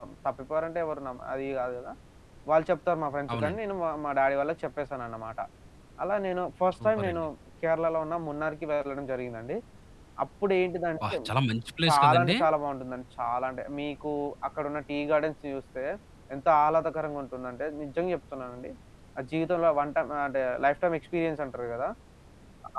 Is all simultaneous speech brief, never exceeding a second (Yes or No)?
Yes